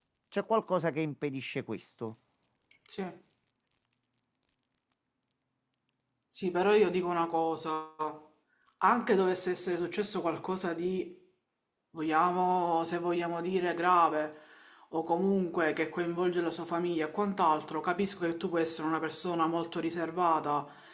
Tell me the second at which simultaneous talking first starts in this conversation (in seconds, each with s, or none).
none